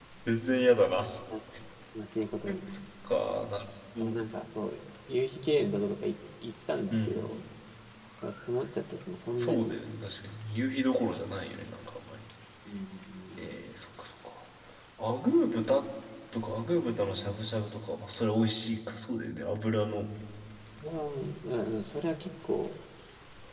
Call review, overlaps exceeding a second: none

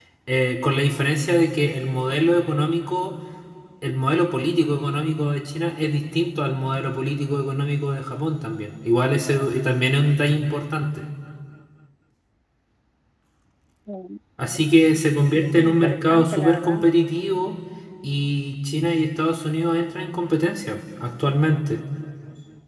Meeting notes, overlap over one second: present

